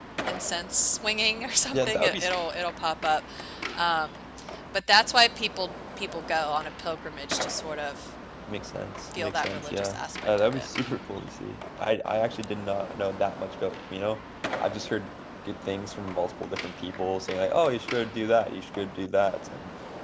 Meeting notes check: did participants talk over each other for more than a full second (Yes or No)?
Yes